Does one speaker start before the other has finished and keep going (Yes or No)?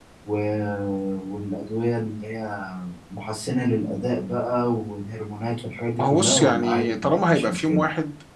Yes